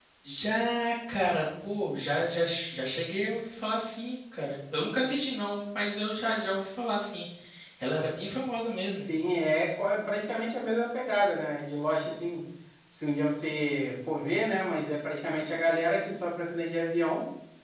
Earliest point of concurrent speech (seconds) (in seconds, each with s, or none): none